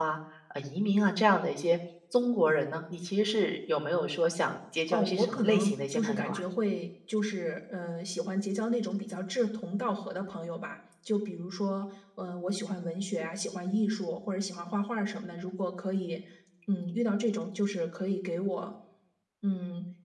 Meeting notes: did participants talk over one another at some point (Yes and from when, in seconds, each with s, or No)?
Yes, from 4.9 s